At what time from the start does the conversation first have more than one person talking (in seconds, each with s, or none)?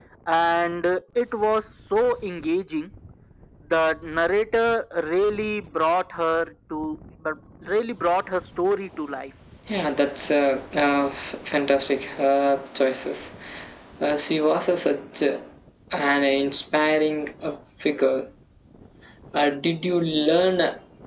none